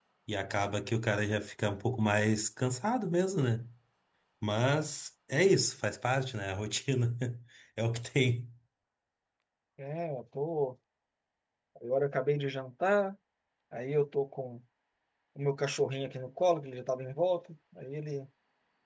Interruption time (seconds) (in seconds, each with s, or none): none